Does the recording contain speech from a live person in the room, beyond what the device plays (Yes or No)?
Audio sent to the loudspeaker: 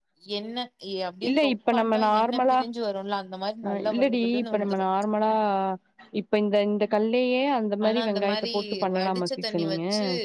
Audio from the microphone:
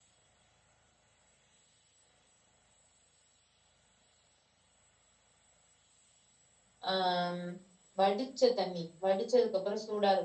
Yes